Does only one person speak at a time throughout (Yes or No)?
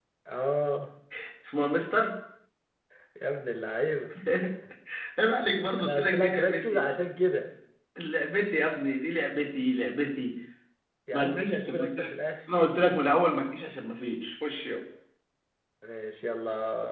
No